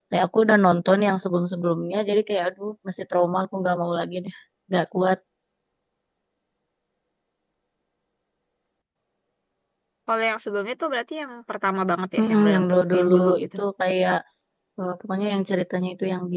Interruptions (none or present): present